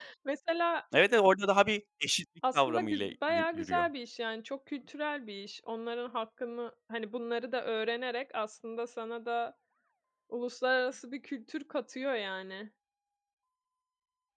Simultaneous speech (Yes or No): Yes